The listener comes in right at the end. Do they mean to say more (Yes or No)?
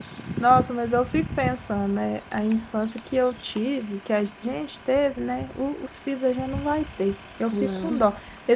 No